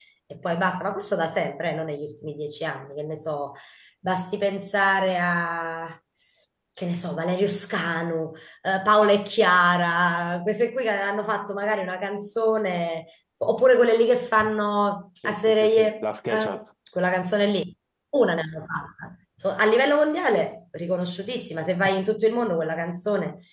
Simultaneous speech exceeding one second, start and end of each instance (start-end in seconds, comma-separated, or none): 15.2-16.5